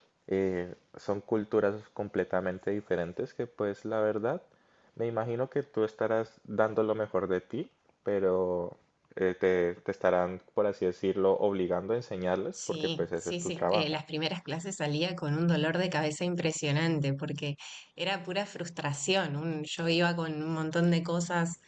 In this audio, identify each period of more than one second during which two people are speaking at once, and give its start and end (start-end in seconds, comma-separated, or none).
12.7-14.0